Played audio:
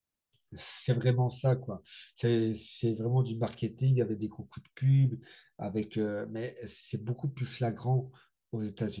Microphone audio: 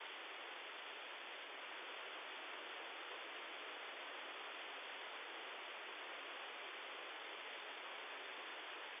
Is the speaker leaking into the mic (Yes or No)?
No